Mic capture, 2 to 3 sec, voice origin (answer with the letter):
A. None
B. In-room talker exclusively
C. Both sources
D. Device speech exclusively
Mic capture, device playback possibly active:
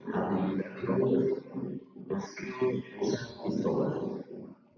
D